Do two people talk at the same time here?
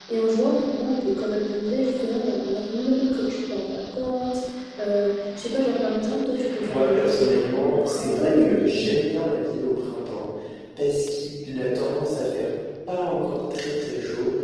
Yes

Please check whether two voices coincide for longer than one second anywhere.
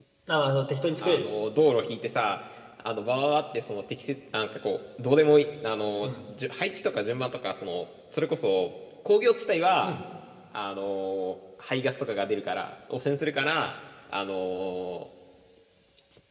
No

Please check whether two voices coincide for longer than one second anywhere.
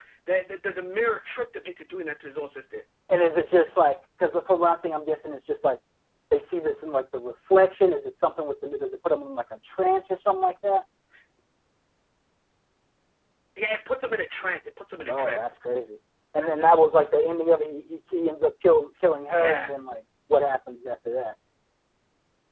No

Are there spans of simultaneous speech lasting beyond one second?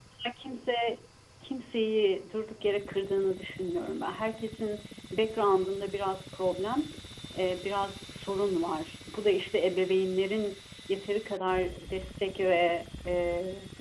No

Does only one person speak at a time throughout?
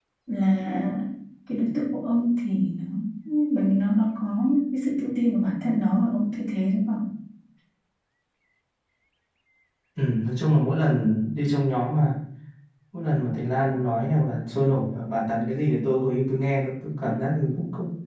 Yes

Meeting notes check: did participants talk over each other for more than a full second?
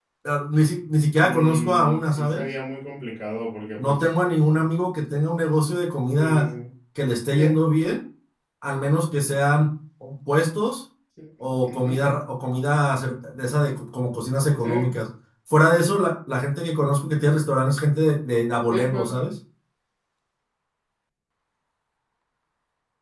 Yes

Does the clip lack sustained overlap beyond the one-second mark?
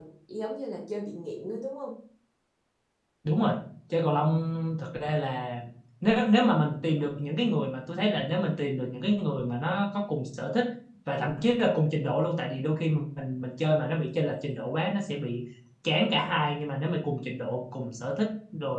Yes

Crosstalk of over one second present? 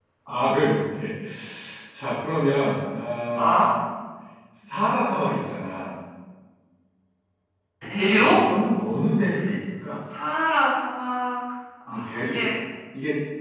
No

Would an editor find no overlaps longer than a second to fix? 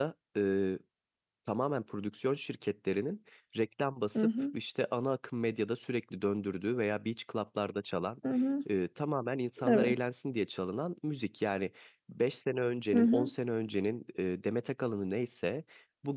Yes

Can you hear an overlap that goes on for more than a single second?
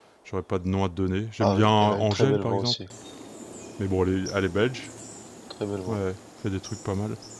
Yes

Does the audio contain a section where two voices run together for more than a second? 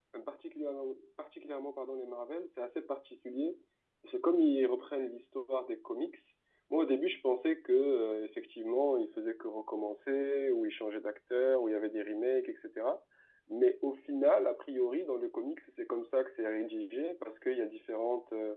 No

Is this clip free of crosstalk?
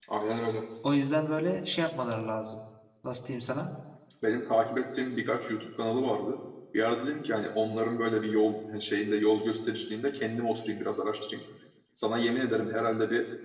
Yes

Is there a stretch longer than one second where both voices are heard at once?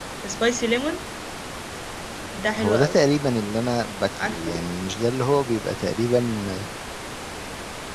No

